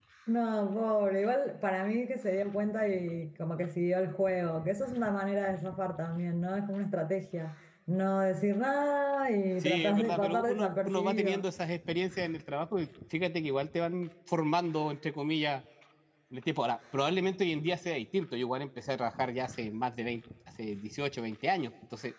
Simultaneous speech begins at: 9.6 s

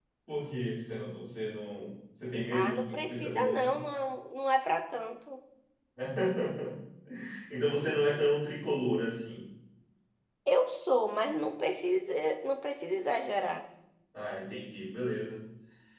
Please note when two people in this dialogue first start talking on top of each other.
2.5 s

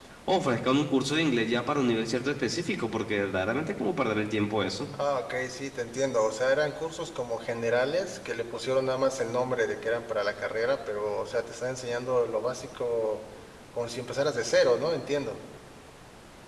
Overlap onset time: none

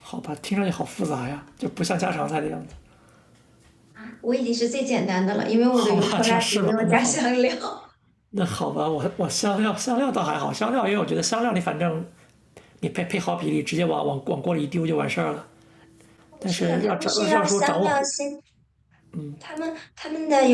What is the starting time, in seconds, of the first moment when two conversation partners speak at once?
5.7 s

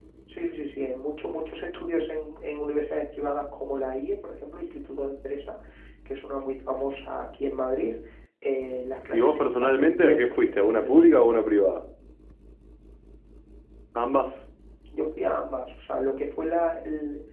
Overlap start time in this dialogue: 9.1 s

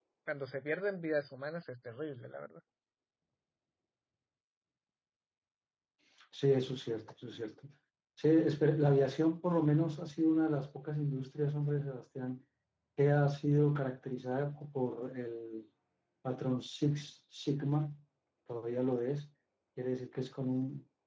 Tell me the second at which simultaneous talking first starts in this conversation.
none

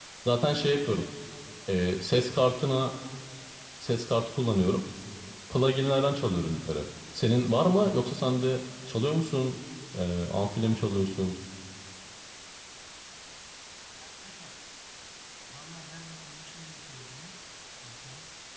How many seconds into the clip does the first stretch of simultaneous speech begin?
none

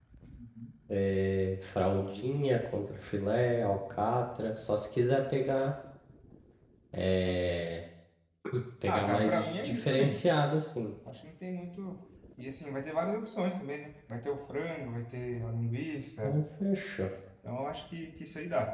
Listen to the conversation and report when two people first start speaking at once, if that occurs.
8.9 s

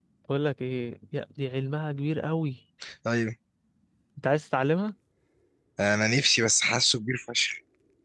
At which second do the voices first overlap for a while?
none

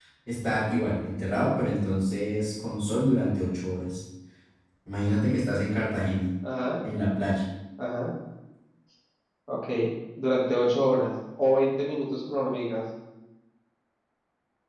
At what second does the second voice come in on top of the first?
none

